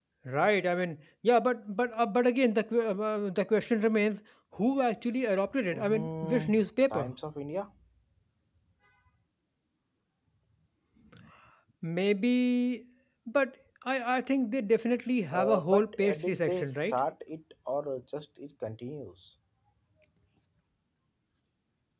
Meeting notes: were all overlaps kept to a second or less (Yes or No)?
No